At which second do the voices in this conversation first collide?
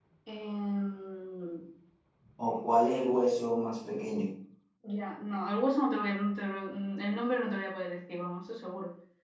none

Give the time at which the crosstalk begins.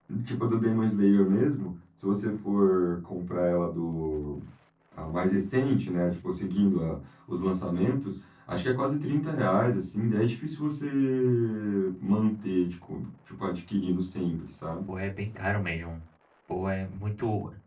none

